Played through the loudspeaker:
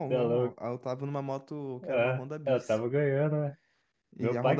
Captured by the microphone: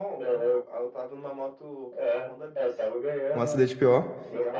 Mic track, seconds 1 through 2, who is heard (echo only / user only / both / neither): echo only